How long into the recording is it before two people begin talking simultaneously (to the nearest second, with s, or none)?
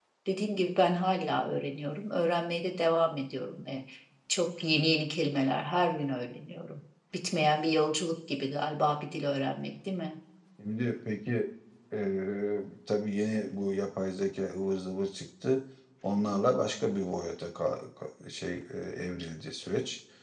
none